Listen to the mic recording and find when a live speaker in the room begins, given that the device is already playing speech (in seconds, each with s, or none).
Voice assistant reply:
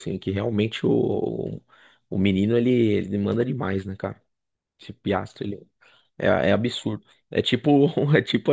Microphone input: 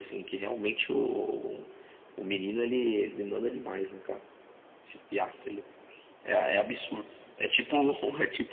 none